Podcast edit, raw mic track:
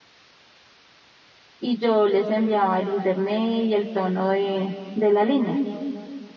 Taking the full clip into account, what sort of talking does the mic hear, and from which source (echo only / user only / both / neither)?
user only